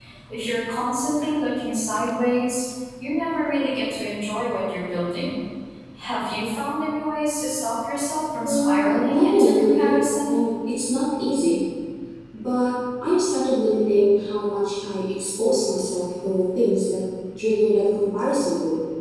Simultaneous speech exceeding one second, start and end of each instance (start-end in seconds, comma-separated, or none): 8.4-10.4